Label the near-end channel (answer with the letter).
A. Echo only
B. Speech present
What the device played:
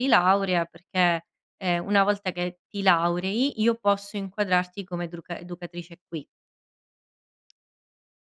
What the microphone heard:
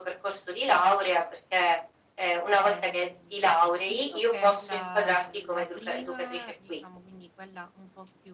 B